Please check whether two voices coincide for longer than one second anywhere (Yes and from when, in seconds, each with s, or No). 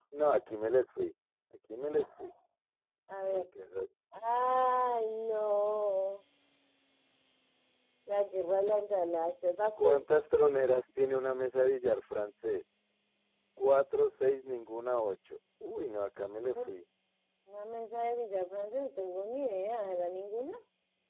No